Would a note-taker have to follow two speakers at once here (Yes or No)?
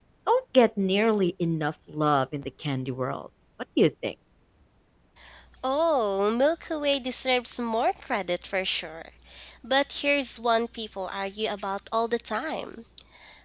No